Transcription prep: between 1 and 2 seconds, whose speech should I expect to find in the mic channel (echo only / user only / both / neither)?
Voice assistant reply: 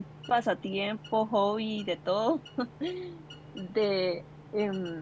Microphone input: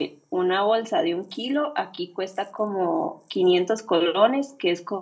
user only